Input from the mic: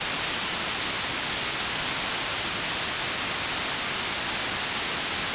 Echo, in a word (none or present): none